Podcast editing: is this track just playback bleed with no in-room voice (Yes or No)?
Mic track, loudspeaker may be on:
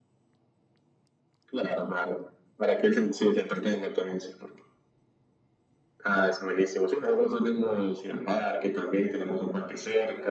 Yes